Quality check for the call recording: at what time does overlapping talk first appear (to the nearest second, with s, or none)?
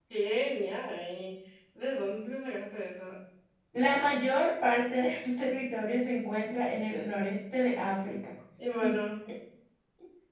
none